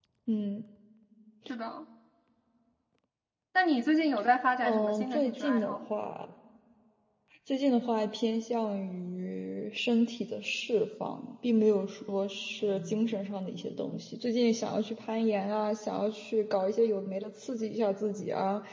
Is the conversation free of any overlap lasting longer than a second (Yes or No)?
No